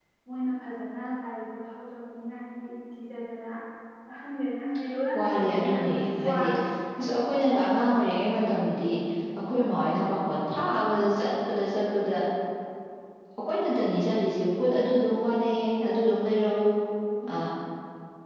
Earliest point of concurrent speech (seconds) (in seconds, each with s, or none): 5.1 s